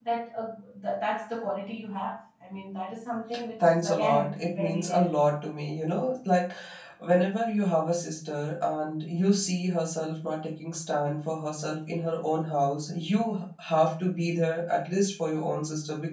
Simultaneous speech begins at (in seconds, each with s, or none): 3.6 s